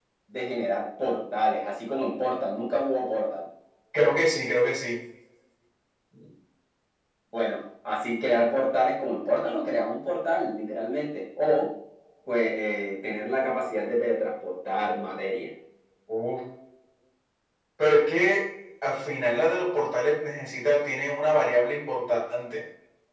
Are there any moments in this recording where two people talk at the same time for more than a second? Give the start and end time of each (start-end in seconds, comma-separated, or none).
none